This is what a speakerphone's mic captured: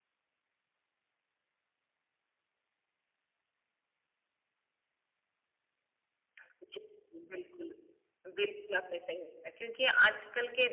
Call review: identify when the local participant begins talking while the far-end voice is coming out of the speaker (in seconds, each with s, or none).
6.4 s